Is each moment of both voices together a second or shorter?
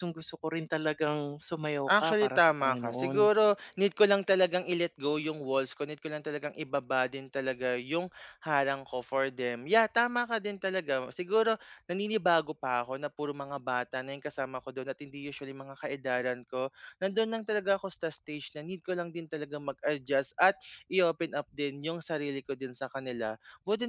No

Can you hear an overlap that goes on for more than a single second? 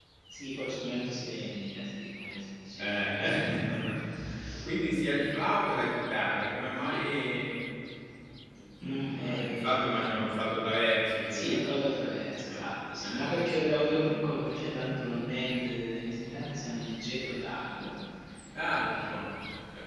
Yes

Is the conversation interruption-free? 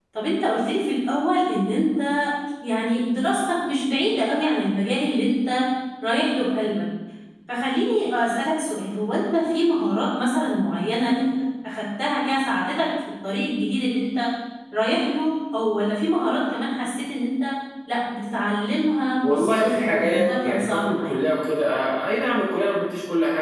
No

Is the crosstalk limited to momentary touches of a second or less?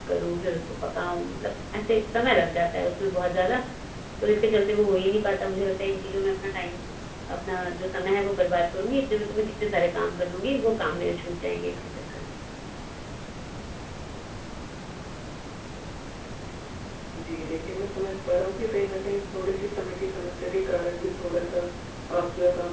Yes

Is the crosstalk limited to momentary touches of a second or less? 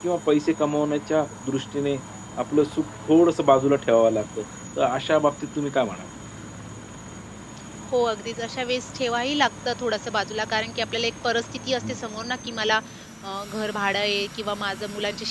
Yes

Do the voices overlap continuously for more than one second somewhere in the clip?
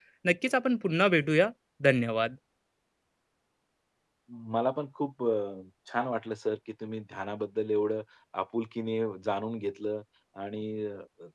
No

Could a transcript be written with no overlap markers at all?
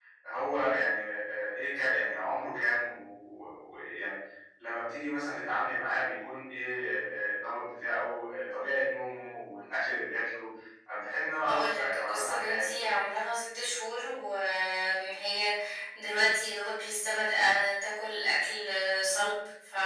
No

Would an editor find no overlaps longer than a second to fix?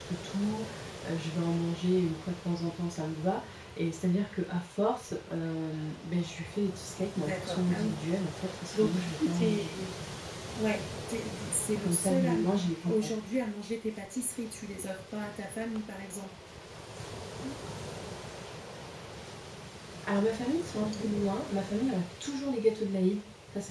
No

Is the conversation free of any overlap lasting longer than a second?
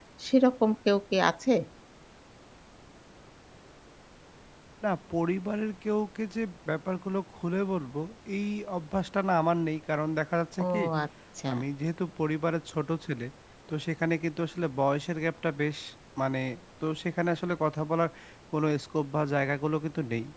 Yes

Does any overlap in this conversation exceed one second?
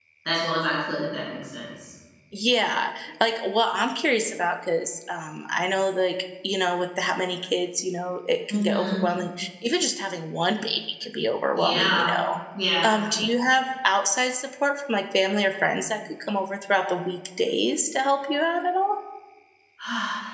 No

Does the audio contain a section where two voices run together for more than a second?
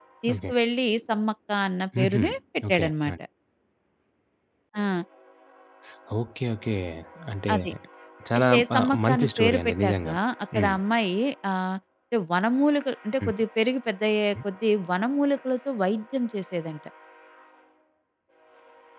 Yes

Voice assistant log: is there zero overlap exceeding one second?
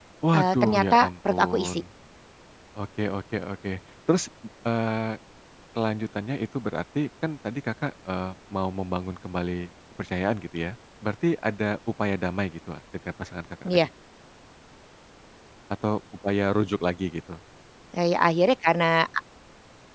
No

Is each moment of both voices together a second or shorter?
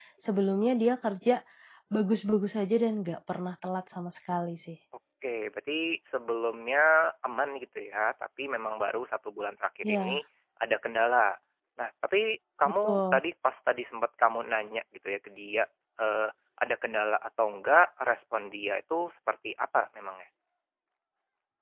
Yes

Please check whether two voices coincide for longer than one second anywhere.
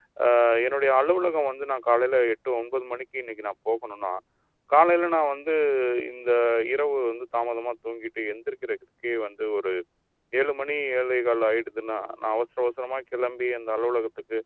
No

